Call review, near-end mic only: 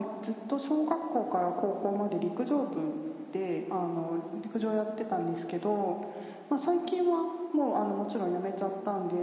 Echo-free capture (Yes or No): No